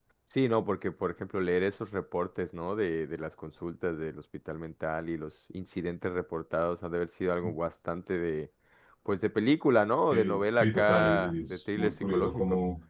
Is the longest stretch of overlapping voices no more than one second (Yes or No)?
No